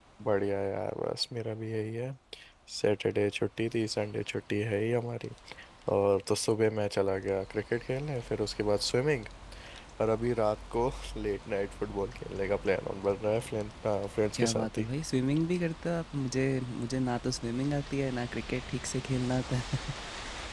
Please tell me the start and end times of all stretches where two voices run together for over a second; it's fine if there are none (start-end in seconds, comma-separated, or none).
none